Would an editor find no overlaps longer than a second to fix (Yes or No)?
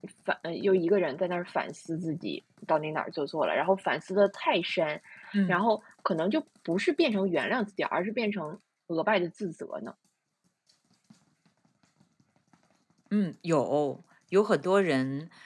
Yes